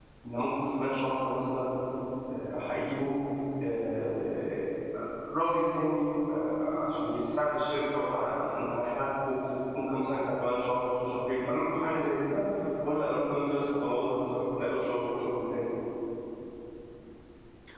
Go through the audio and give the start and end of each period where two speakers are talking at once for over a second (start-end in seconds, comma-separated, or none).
none